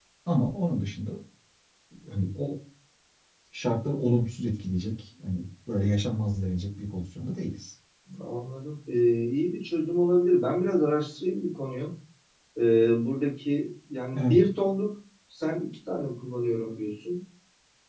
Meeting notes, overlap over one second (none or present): none